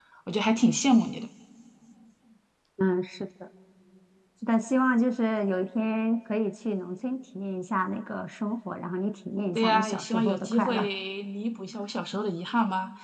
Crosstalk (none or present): present